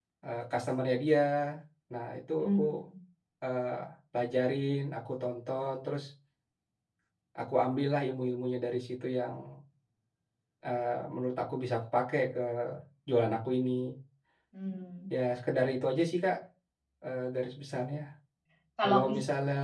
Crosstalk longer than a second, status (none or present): none